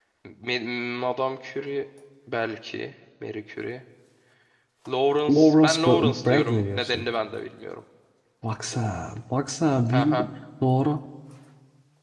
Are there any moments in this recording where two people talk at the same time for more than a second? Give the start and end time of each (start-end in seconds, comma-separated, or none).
5.3-7.1